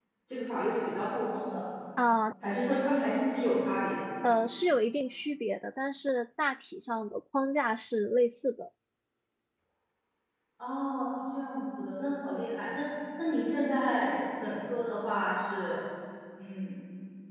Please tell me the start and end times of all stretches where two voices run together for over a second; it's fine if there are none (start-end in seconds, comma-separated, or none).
none